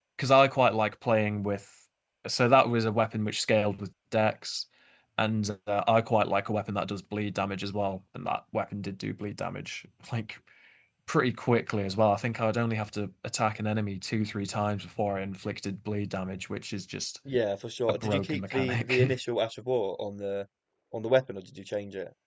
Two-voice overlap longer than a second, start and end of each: 17.9-19.1

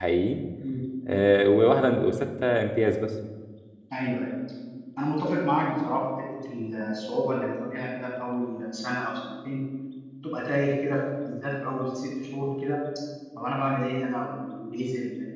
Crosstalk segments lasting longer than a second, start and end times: none

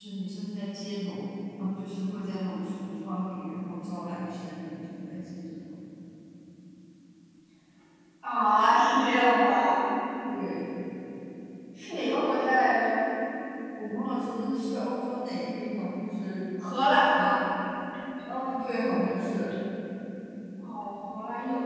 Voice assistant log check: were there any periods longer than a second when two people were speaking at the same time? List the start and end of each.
none

